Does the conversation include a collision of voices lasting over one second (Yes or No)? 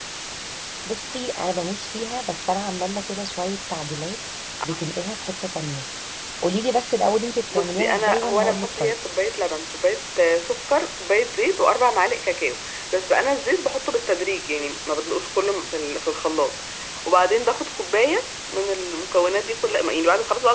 Yes